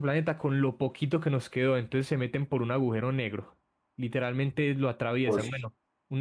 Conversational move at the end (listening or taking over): listening